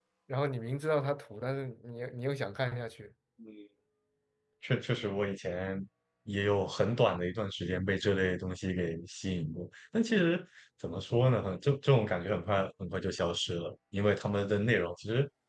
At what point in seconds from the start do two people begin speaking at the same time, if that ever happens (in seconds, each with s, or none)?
none